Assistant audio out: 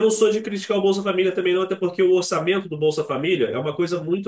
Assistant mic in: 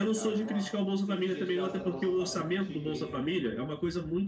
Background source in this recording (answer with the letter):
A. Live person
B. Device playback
A